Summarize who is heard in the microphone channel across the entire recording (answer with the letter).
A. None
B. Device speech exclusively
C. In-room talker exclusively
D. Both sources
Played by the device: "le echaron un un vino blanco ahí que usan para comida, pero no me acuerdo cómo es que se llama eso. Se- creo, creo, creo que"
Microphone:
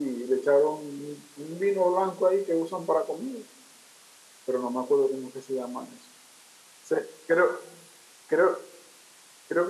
B